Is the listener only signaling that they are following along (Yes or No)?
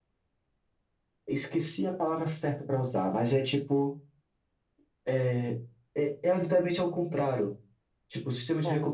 Yes